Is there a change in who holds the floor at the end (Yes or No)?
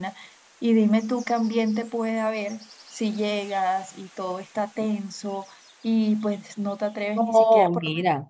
Yes